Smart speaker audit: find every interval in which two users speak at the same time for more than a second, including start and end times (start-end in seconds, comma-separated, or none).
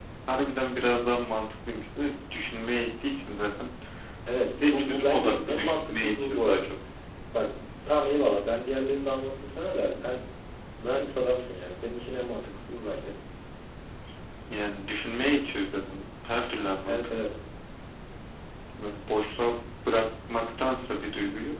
4.7-6.7